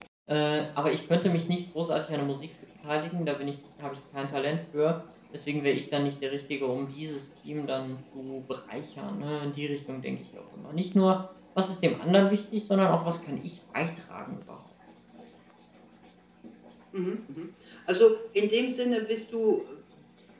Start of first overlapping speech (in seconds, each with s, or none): none